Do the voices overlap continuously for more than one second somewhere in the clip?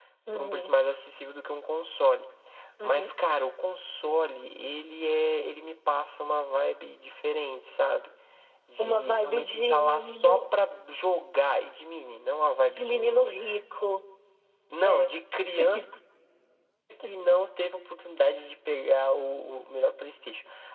Yes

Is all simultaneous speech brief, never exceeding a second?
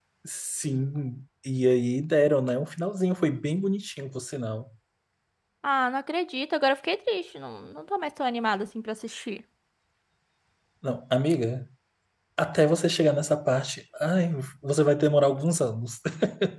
Yes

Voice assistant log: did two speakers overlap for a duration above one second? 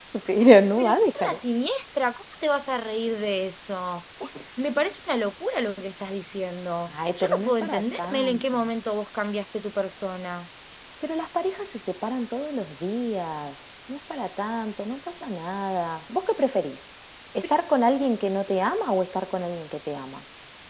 Yes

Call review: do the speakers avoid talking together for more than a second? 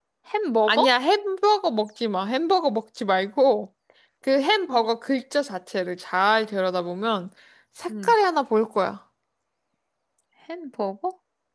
Yes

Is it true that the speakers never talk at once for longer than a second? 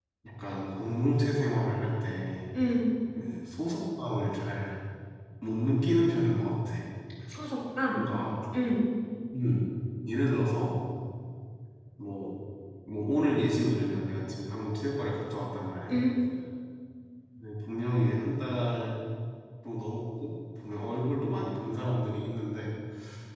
Yes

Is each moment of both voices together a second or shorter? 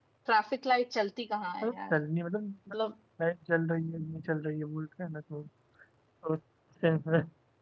Yes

